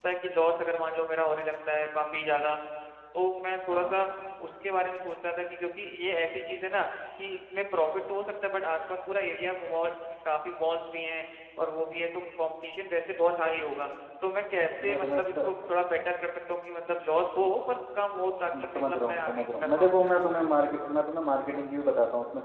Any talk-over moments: Yes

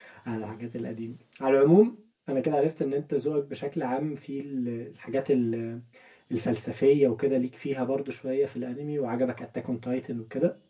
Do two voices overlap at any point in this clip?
No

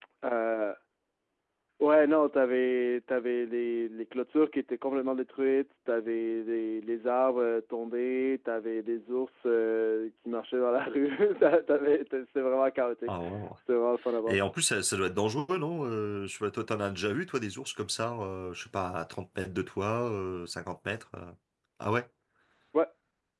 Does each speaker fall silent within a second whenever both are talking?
Yes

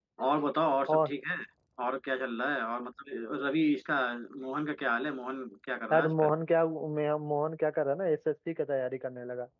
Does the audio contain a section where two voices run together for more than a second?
No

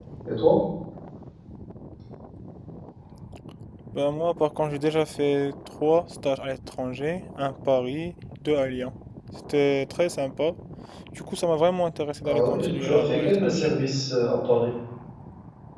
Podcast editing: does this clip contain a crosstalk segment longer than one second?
Yes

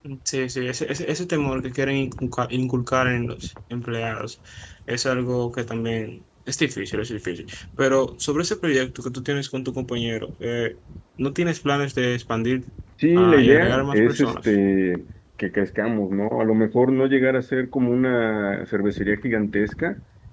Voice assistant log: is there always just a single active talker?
No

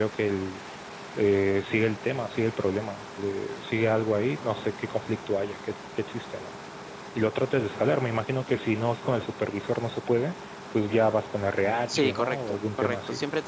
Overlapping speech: Yes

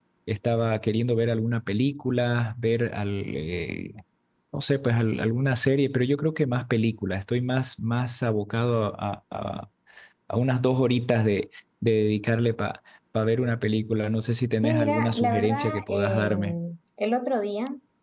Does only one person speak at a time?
No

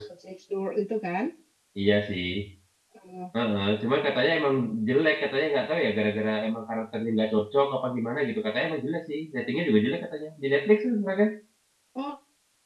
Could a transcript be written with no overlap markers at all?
Yes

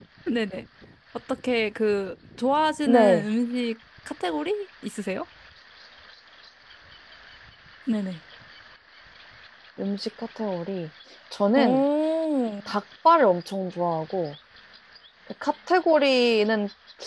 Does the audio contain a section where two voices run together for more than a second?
No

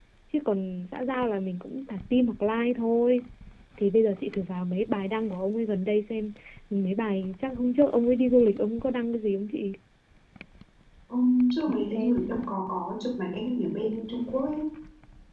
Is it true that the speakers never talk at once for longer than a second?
Yes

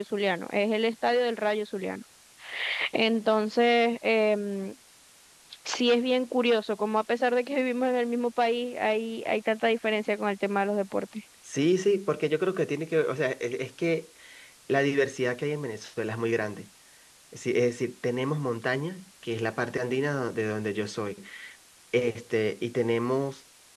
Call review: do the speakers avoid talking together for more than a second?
Yes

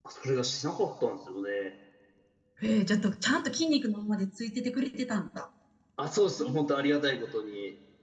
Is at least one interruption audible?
No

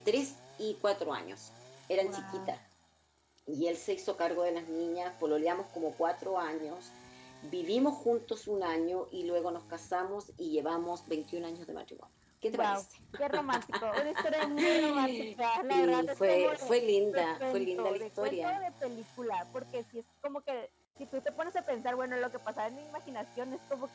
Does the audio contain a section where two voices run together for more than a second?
Yes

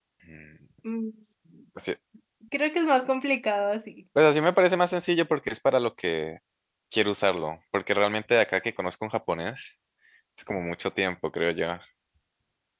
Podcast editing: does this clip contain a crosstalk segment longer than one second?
No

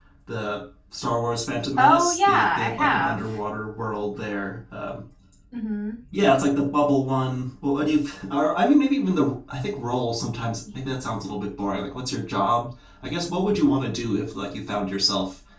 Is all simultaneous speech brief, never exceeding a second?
No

